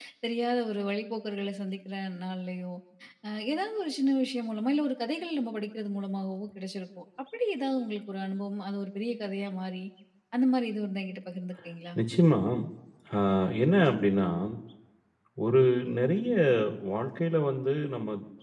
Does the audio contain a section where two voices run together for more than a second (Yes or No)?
No